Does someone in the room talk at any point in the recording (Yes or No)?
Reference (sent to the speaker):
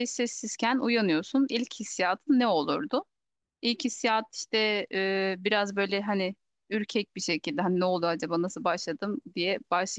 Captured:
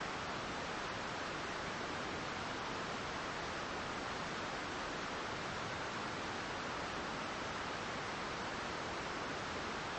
No